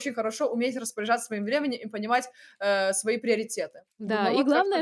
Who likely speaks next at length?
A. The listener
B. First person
A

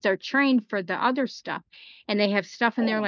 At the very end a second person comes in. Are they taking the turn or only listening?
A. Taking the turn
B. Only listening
B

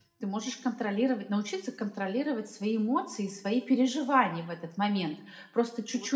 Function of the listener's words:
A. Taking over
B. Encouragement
A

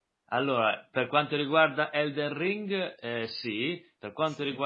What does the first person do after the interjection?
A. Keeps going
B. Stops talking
A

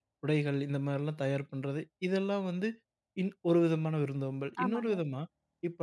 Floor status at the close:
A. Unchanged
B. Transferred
A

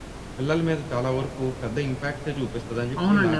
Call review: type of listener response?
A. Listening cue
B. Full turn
B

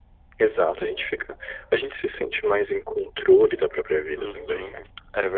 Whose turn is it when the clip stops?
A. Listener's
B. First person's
A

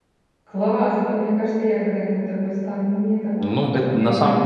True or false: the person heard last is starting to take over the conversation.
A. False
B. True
B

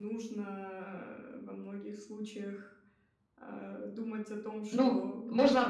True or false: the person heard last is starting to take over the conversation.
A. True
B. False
A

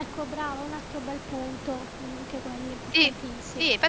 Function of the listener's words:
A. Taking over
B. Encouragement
A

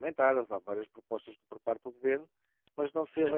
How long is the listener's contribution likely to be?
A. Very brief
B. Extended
A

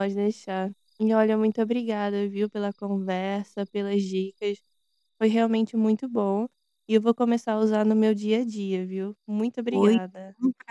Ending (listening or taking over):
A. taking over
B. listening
A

